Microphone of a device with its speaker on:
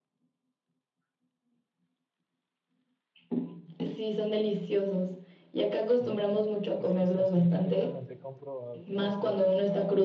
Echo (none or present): present